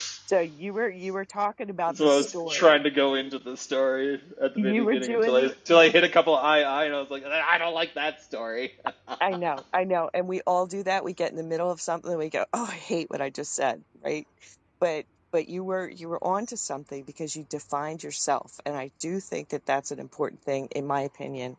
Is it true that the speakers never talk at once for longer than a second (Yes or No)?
No